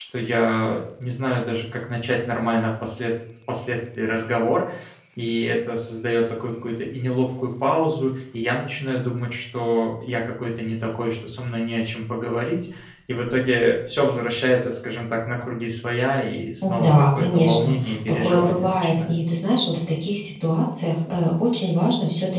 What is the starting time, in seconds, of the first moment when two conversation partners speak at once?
16.6 s

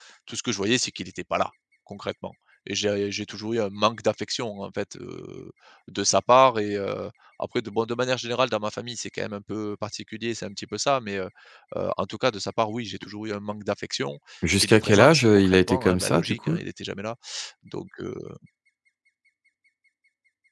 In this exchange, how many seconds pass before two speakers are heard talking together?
14.6 s

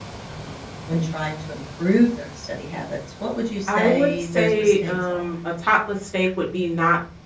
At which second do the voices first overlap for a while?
3.7 s

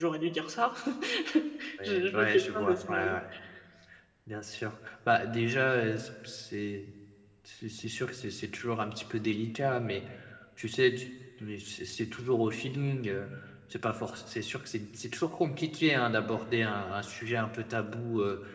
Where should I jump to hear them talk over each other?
1.8 s

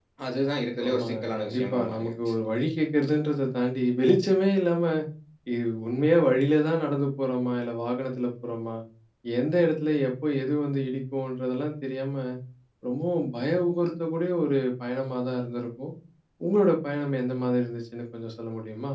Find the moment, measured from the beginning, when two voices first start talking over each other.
0.8 s

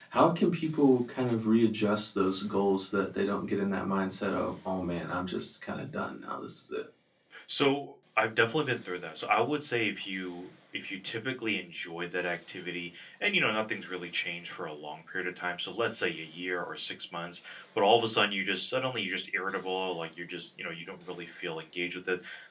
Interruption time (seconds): none

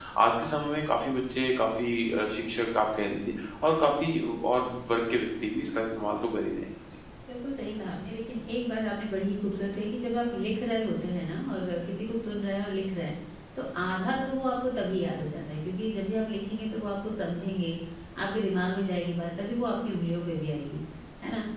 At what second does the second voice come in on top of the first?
none

